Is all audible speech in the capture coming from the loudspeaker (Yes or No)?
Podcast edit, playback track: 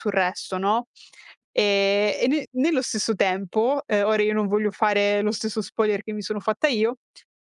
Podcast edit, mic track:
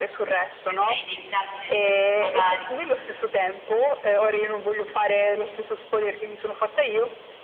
No